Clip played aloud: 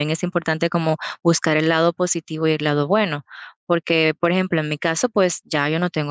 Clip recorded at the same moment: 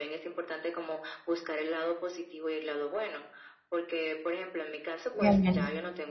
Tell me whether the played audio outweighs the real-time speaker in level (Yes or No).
No